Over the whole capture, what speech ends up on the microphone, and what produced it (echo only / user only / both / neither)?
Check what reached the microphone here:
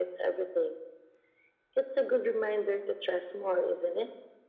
echo only